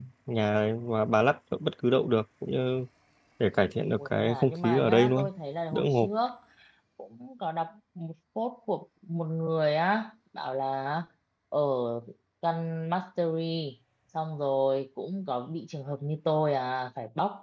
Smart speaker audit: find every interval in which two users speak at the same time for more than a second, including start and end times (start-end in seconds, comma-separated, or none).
4.0-5.3